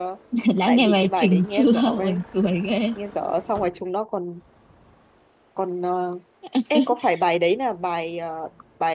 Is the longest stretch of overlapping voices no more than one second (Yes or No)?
No